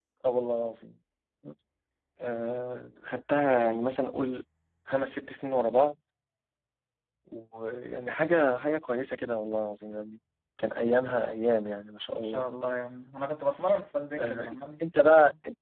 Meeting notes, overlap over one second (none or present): none